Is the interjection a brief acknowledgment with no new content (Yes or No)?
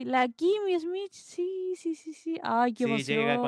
No